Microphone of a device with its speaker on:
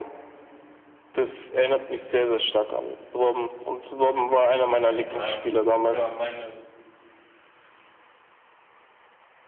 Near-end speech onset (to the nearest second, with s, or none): 5 s